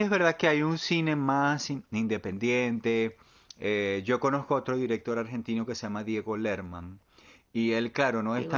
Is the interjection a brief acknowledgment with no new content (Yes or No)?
Yes